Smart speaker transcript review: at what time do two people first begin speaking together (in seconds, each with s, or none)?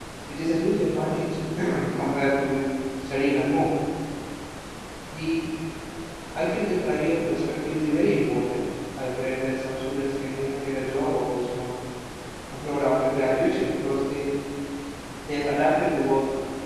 none